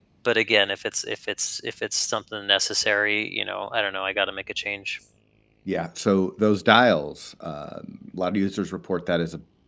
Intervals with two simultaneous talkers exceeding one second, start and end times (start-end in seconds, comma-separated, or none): none